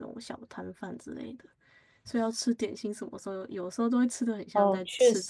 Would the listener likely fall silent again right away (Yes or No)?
No